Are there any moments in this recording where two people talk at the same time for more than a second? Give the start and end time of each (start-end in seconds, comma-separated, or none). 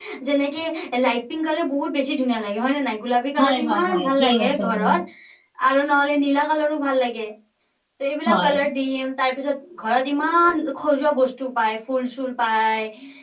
3.4-4.9